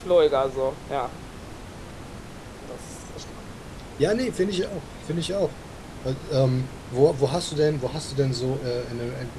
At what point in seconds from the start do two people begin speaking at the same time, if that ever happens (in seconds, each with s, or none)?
none